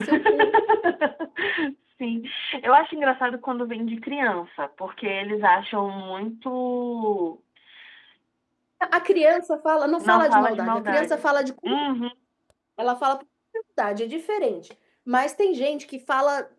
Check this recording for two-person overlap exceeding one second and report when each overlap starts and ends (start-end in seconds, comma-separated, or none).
10.0-11.3